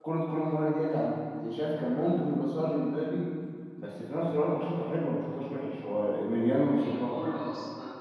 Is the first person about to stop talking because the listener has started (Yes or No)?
Yes